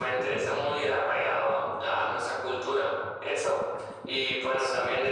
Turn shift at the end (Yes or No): No